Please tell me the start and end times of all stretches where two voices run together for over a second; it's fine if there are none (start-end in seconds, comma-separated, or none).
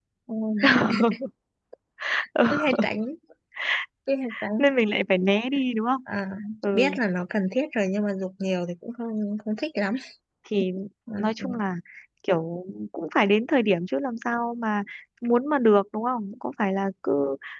none